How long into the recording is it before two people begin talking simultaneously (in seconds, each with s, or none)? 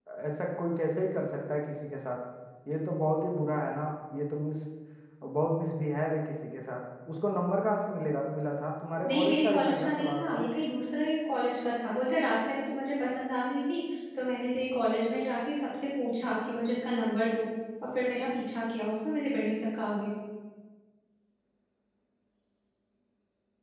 9.0 s